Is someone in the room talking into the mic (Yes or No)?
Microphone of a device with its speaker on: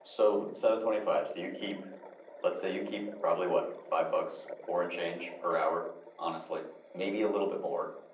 Yes